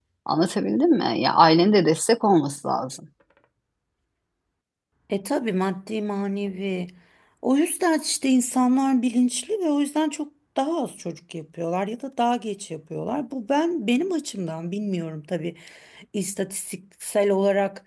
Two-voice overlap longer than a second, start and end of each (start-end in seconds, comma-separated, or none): none